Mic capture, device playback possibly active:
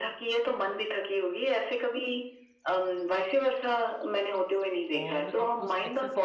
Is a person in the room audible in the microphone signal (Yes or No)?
Yes